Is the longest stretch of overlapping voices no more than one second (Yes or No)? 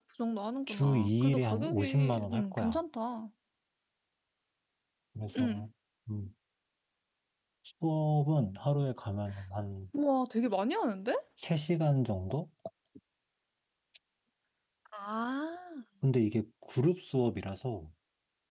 No